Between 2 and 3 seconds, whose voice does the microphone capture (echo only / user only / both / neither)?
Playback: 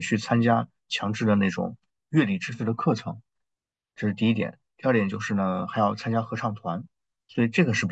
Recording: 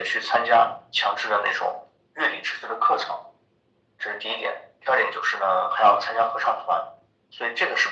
echo only